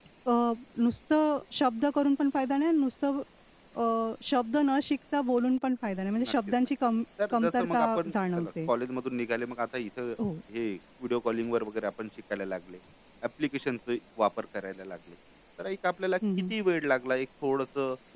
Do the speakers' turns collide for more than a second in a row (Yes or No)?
Yes